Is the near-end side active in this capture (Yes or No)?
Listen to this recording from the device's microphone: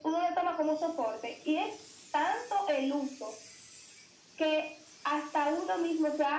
No